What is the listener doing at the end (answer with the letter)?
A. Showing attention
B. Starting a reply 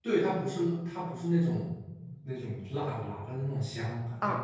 B